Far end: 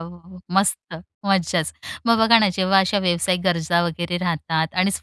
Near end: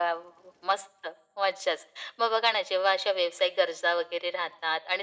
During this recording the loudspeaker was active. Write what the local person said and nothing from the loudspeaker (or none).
none